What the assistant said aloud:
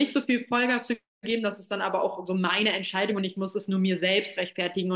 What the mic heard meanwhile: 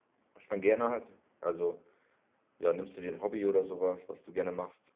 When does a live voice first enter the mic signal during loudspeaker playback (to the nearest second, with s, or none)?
0 s